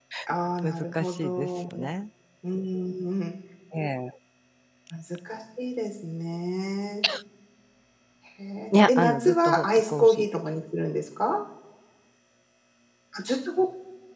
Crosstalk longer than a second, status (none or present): present